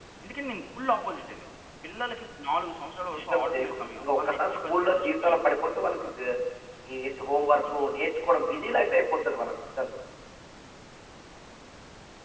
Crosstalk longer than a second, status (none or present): present